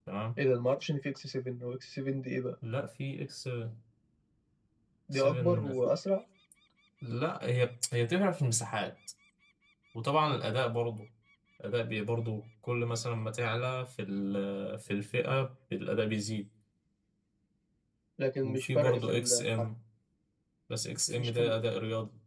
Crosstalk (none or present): present